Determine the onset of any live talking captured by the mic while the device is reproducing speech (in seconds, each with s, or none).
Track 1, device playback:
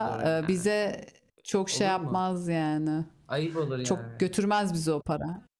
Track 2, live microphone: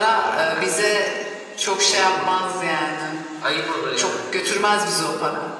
none